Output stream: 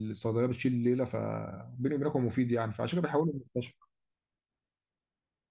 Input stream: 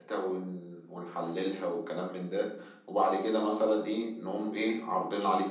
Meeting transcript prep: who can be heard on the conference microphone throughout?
user only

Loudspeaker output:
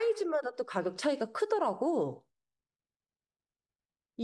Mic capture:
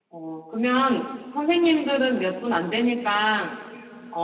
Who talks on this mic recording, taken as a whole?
user only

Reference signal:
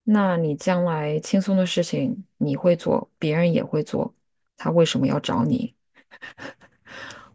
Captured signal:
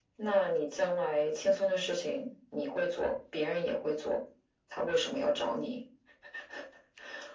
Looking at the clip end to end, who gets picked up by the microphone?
echo only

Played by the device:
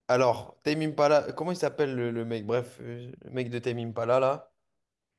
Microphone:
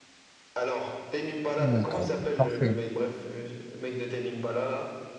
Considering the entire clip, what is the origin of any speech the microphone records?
both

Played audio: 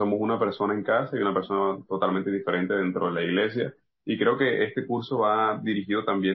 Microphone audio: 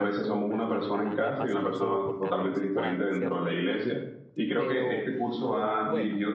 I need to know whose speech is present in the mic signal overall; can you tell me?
both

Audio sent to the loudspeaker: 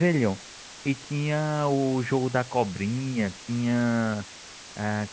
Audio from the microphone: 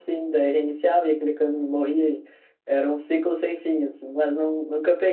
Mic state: user only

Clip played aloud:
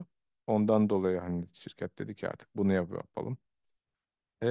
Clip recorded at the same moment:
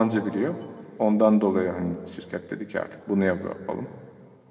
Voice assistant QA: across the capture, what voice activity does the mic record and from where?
echo only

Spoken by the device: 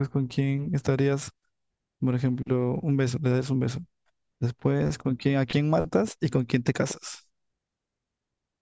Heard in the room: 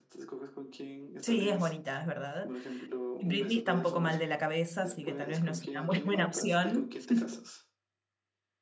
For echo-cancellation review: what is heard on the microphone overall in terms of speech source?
both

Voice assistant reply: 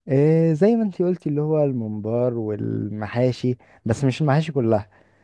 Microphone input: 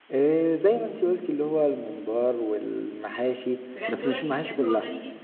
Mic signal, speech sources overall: both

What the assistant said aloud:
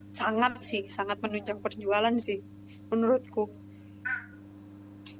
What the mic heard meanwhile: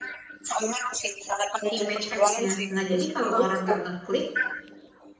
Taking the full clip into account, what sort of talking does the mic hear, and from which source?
both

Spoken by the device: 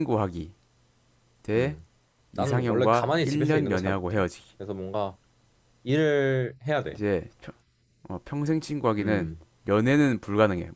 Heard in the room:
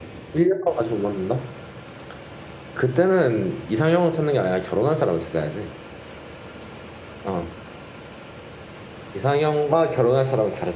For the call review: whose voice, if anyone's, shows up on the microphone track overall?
user only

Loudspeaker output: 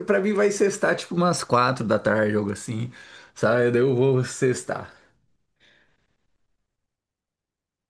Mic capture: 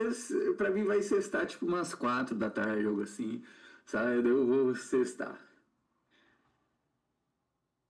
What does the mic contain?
echo only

